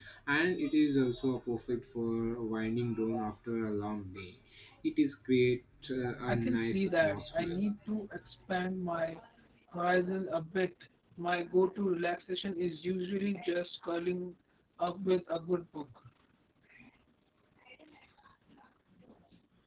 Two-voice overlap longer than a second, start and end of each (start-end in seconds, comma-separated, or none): 6.2-7.6